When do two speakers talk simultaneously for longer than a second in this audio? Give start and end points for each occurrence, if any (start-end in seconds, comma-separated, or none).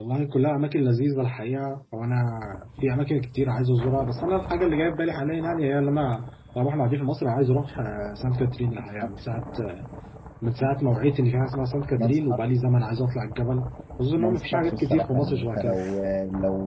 14.2-15.8